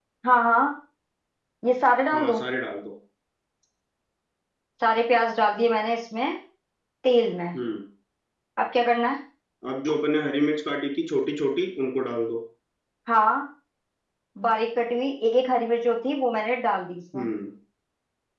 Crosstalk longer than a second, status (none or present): none